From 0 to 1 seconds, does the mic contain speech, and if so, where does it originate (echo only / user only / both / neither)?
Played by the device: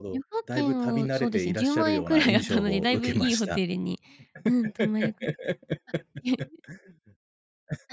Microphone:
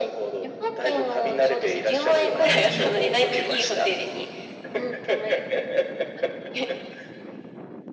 echo only